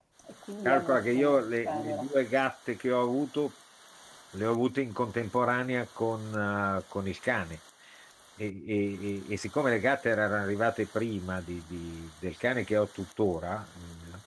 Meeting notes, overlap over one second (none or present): present